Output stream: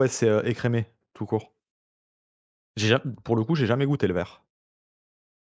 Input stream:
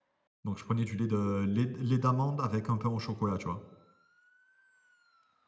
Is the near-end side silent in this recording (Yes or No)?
No